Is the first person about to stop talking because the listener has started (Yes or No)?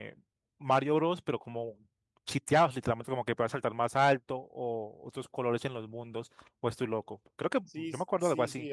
Yes